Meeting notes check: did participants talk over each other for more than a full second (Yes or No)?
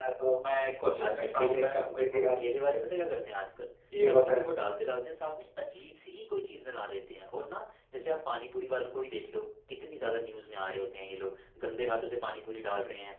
Yes